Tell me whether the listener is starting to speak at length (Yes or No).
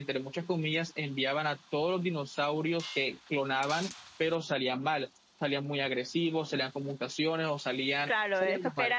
Yes